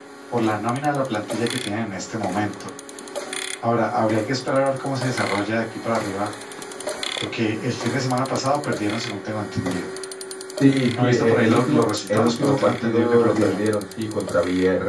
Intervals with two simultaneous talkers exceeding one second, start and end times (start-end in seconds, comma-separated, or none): 11.0-13.6